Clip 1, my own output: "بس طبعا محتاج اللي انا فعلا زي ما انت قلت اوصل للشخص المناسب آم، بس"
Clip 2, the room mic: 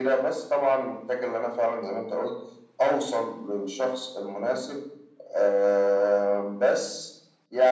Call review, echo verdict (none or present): present